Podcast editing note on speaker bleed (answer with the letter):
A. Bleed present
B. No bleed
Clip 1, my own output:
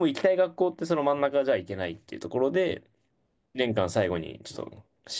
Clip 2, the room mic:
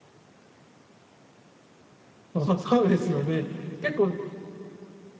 B